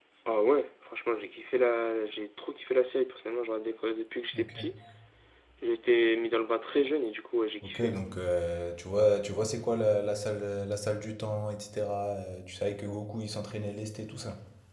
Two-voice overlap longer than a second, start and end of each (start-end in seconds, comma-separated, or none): none